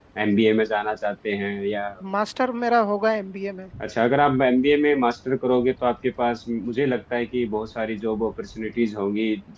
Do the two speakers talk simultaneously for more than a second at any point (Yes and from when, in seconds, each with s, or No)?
No